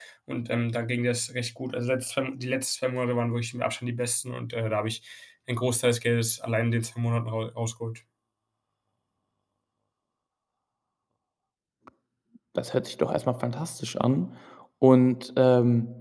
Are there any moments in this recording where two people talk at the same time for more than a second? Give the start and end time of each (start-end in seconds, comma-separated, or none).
none